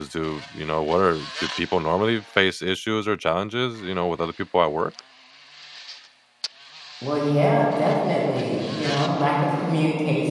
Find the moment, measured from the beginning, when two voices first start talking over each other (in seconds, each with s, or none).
none